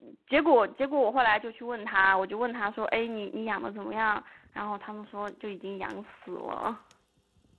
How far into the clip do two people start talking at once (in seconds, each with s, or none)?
none